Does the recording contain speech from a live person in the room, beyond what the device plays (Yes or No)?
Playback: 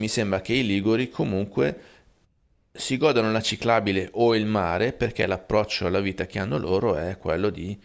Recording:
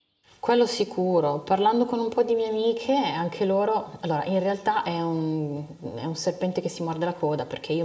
Yes